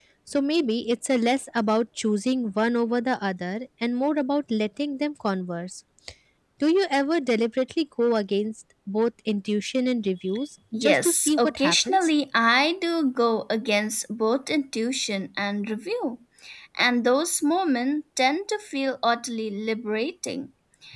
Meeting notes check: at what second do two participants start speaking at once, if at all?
10.7 s

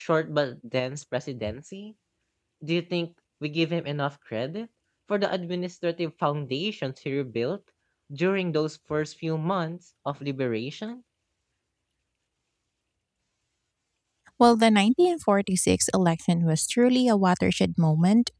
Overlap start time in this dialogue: none

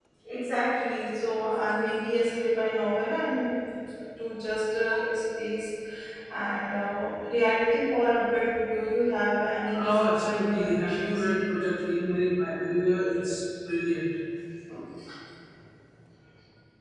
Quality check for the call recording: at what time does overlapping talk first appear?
9.7 s

